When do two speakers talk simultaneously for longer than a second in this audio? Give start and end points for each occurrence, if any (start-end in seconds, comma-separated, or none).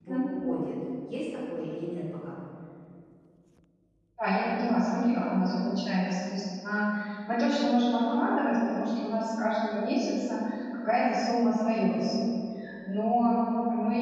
none